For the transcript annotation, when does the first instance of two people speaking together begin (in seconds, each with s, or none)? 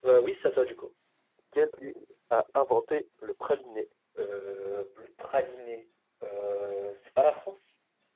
none